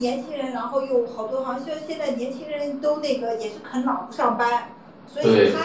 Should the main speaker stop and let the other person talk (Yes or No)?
No